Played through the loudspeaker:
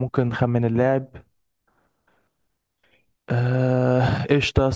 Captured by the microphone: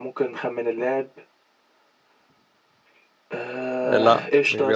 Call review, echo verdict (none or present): present